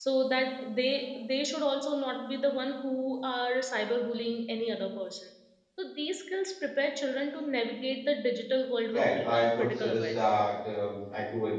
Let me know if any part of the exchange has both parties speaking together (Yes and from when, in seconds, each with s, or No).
Yes, from 8.9 s